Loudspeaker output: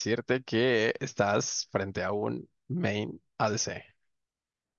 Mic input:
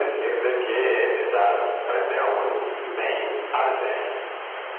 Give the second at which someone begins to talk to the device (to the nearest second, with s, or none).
none